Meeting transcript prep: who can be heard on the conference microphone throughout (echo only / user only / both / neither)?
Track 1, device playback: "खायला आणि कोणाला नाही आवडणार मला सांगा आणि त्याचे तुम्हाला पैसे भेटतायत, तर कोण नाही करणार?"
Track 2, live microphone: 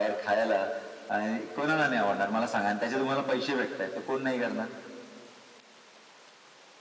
echo only